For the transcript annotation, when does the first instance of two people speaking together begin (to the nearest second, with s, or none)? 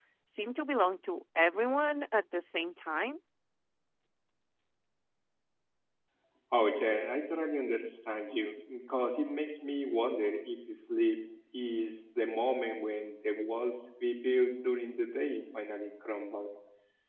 none